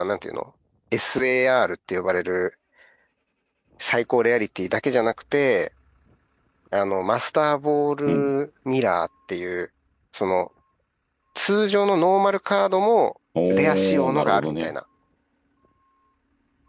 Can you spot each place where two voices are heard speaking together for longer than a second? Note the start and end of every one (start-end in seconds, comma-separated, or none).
13.5-14.7